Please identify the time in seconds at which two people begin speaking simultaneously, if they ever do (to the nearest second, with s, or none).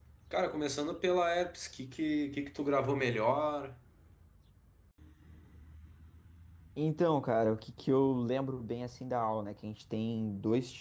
none